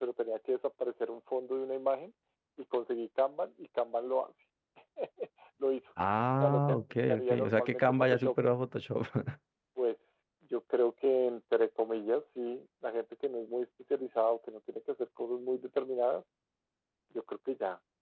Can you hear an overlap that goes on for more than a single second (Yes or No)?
Yes